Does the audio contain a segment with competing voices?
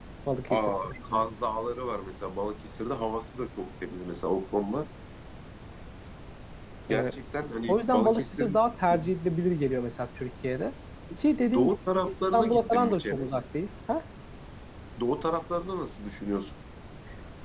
Yes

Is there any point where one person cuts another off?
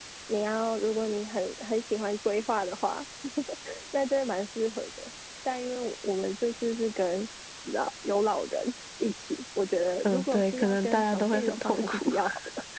Yes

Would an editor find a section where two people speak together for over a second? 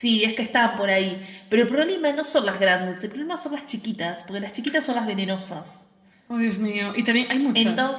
No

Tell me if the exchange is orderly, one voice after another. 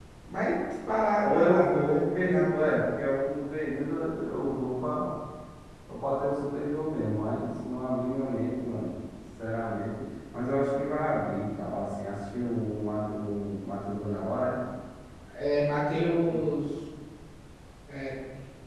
No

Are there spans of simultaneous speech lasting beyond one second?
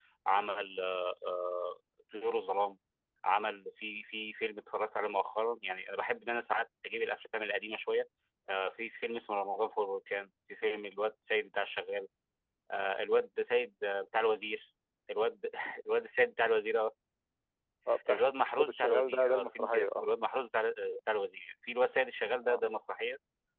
Yes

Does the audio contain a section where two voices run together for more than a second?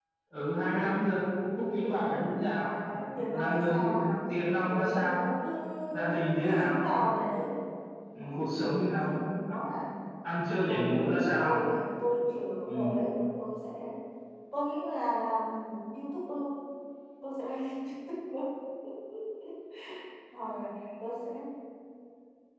Yes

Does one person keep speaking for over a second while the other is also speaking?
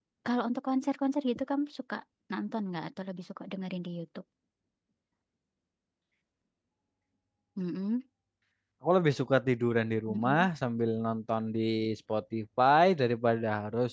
No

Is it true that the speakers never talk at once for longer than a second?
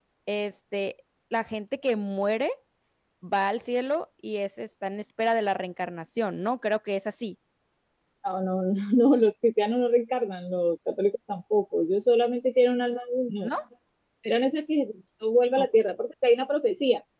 Yes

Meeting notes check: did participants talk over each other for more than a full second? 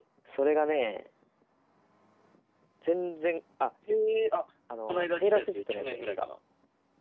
Yes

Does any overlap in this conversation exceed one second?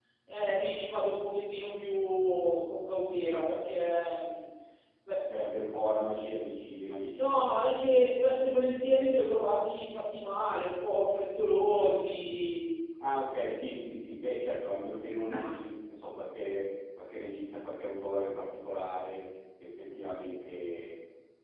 No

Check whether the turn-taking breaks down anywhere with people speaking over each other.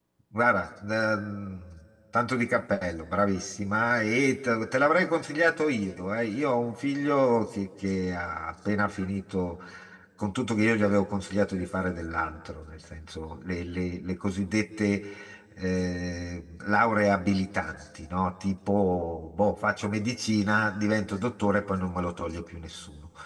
No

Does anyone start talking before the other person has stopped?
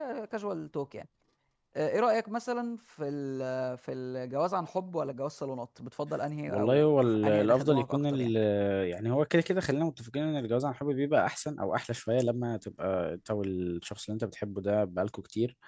Yes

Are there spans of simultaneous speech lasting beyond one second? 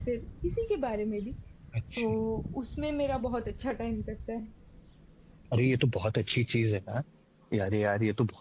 No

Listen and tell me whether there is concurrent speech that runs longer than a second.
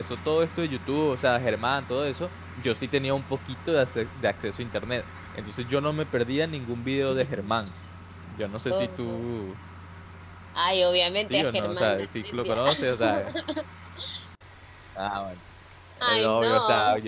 Yes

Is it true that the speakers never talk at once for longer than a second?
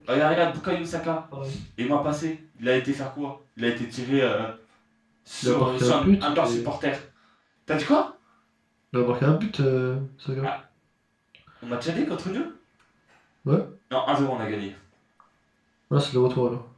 No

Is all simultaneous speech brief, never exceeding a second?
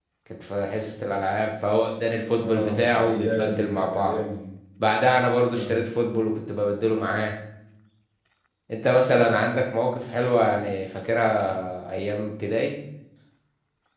No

